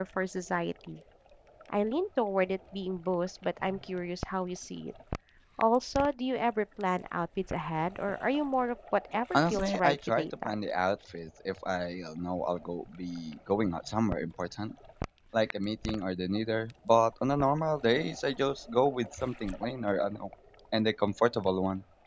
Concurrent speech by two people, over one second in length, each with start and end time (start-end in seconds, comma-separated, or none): 9.3-10.6